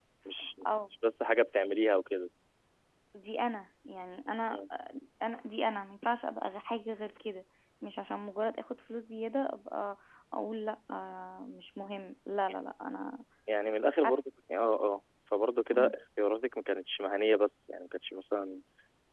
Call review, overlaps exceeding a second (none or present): none